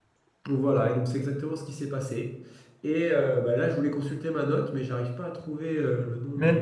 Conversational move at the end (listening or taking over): taking over